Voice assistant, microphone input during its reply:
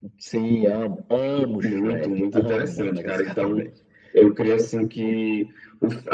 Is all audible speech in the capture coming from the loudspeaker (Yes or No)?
Yes